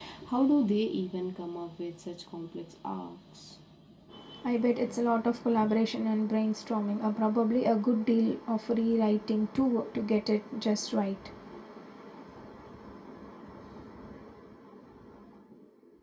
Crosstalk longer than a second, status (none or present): none